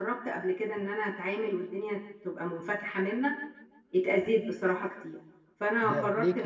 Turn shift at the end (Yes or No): Yes